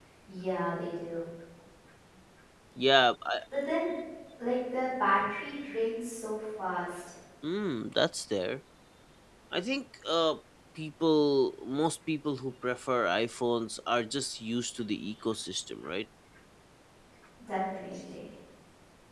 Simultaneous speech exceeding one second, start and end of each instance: none

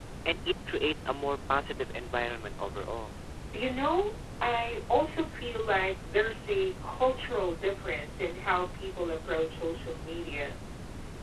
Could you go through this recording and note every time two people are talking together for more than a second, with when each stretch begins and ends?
none

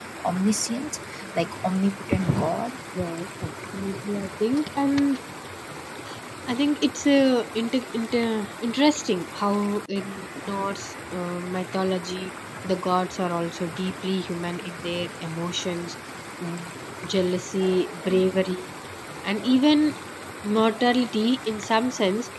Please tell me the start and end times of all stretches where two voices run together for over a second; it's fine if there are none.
none

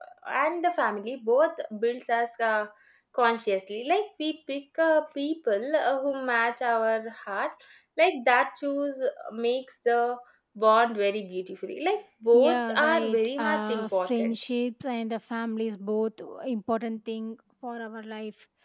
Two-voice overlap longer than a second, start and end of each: 12.3-14.4

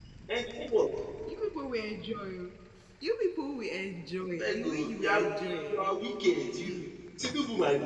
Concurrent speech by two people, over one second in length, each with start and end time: 4.4-5.9

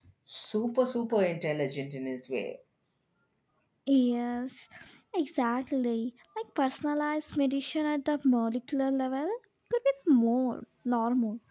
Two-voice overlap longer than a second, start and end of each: none

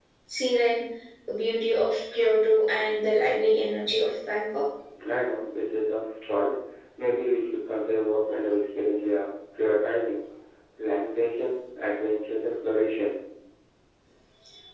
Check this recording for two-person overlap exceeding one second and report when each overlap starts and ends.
none

